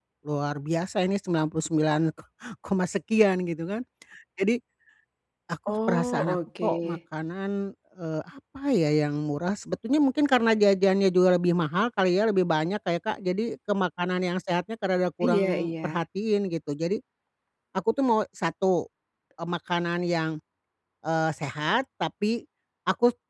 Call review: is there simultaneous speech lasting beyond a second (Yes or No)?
Yes